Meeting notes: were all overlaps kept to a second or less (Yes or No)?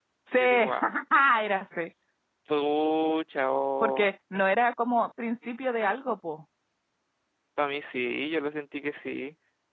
Yes